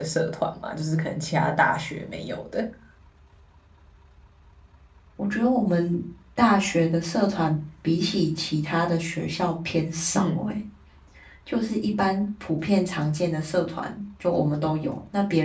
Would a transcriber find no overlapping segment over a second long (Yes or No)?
Yes